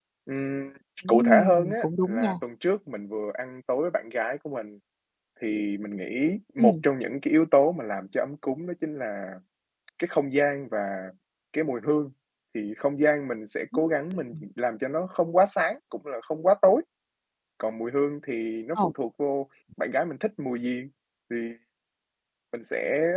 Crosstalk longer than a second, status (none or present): present